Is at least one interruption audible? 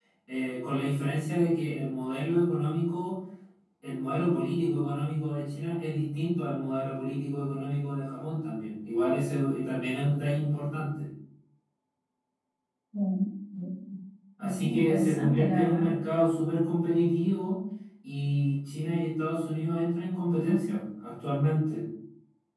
Yes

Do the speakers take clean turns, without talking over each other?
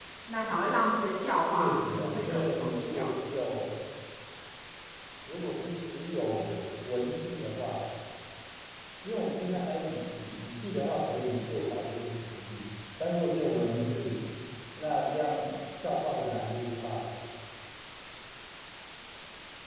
No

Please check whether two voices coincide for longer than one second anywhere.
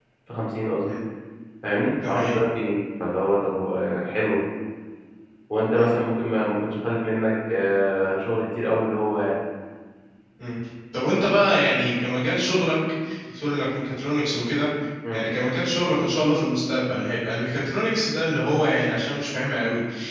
No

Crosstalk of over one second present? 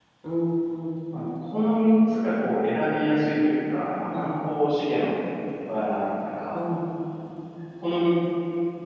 No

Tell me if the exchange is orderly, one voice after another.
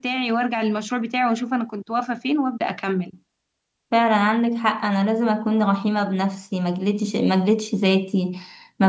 Yes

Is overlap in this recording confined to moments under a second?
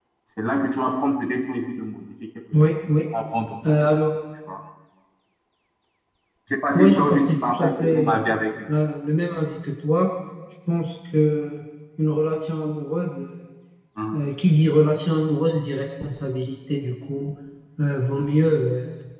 No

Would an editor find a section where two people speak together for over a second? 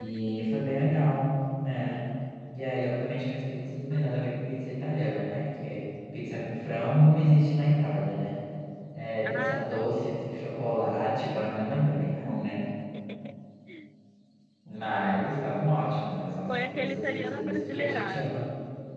Yes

